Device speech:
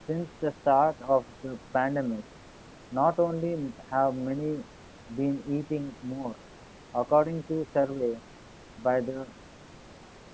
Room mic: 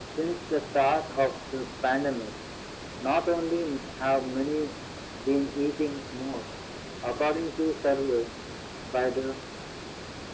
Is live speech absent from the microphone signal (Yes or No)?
Yes